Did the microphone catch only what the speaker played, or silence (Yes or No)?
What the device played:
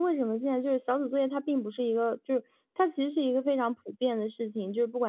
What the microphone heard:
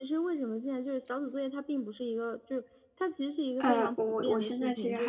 No